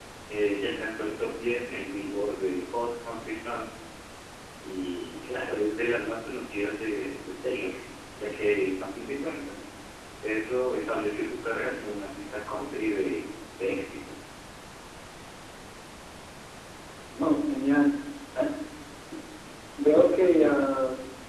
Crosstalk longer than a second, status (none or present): none